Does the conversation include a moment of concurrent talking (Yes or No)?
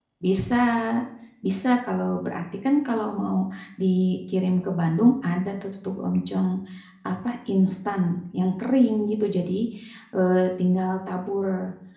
No